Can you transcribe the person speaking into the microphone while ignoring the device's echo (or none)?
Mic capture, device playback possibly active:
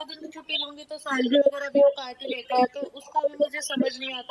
none